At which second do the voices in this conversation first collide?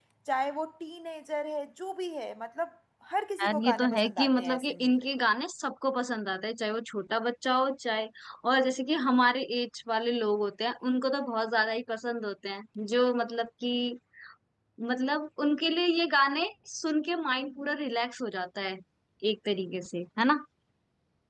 3.4 s

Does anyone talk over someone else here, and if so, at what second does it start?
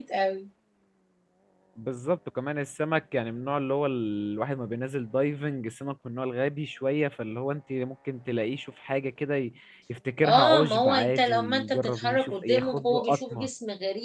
10.2 s

